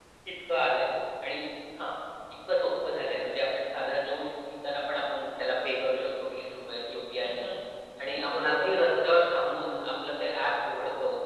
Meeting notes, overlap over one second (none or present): present